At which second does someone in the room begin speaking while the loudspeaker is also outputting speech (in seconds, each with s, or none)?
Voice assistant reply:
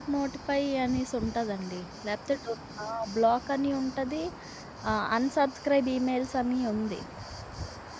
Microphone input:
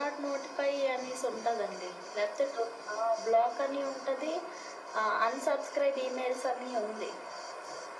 none